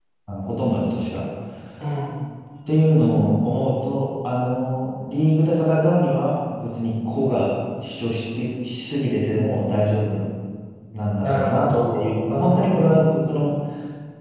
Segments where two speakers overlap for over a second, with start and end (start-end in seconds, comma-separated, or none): 11.2-13.2